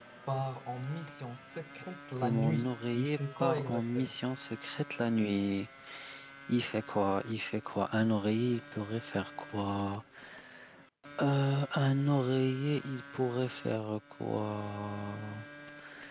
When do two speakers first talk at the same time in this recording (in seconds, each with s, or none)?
2.2 s